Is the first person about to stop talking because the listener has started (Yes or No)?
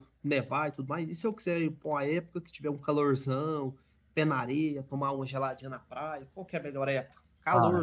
Yes